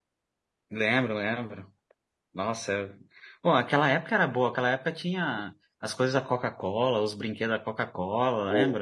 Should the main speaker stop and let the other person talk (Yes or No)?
Yes